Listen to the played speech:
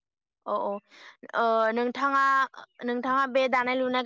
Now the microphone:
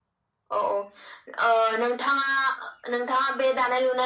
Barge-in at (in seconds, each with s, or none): none